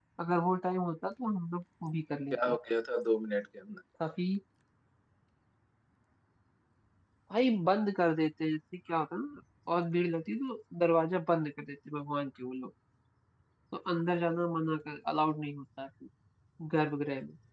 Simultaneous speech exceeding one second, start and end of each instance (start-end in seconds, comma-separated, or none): none